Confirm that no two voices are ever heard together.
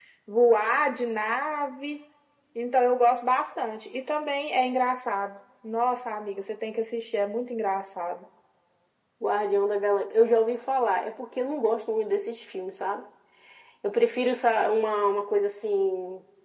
Yes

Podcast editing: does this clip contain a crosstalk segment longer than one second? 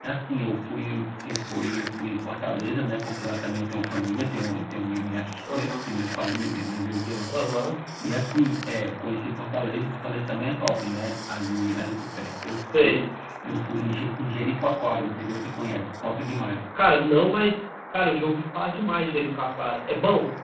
No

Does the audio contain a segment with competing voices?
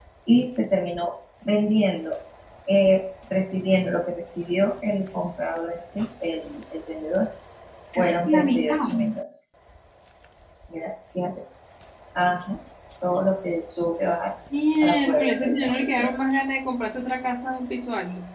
Yes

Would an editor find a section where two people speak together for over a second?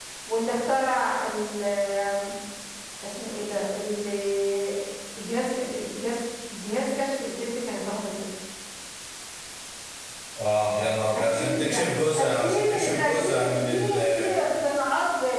Yes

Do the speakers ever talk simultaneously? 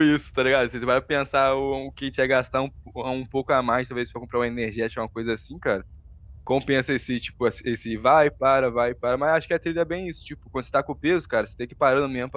No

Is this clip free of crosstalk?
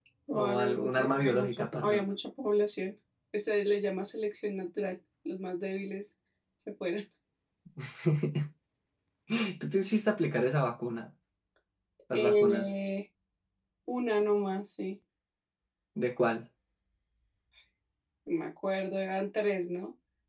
No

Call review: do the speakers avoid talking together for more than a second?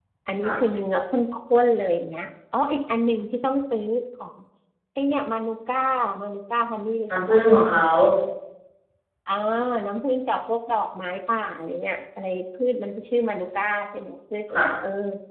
Yes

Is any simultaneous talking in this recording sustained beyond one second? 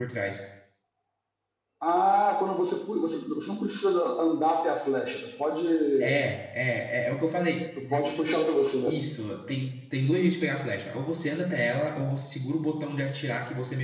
No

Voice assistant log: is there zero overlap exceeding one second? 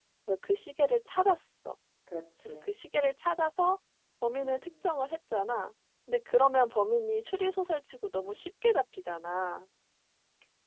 Yes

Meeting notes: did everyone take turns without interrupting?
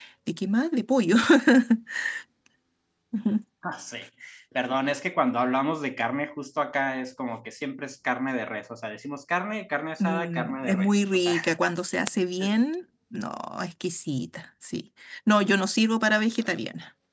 No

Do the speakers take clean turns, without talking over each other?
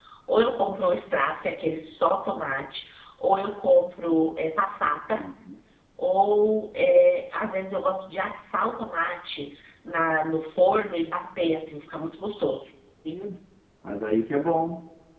Yes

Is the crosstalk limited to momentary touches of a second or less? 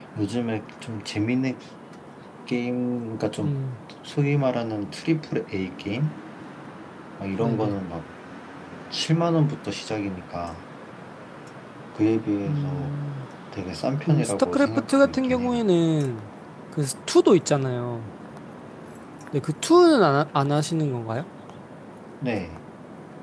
No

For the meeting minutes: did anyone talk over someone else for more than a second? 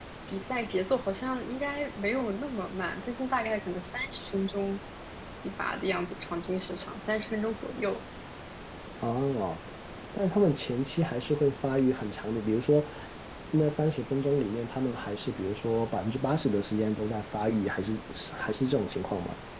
No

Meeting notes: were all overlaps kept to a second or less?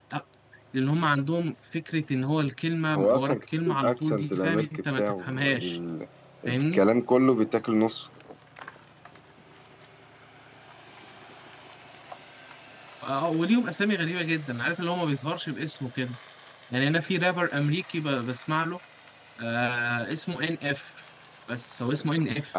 No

